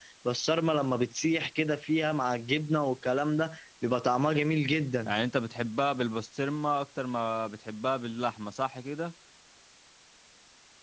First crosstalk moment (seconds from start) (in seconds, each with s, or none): none